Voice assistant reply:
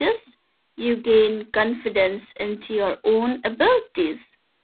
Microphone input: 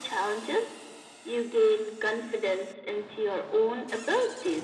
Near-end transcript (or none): none